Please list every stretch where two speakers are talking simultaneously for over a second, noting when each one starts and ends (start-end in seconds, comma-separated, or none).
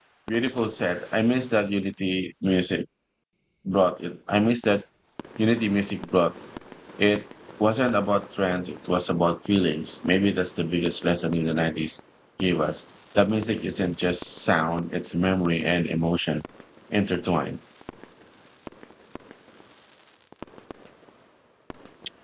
none